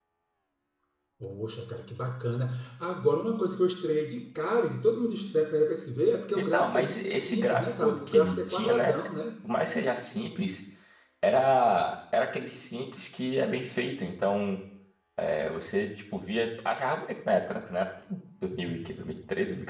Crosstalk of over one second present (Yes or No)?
Yes